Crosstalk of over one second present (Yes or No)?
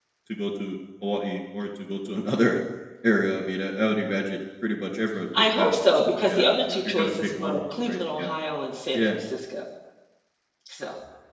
Yes